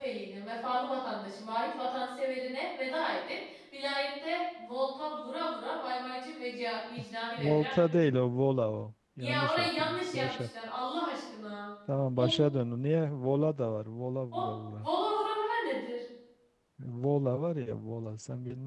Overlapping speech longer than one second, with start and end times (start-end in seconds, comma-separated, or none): 9.2-10.5